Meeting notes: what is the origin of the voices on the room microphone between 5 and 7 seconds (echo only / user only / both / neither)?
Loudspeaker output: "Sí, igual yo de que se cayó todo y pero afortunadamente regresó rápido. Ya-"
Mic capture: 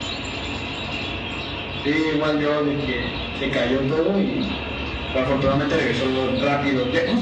echo only